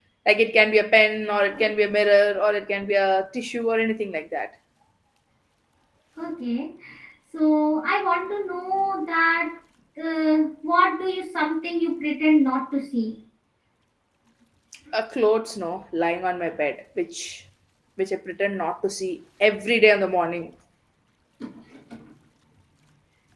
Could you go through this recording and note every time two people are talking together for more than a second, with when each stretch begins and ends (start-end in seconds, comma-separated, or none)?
none